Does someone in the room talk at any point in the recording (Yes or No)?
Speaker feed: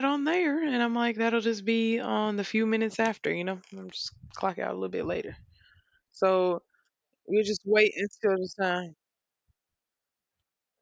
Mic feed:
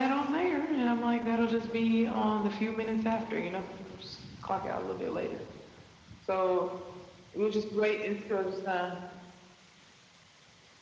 No